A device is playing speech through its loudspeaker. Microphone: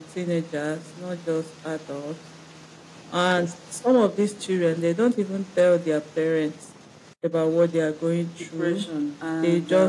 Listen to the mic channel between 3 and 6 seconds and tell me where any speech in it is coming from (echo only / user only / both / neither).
echo only